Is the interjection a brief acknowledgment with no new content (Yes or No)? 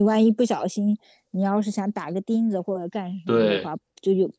Yes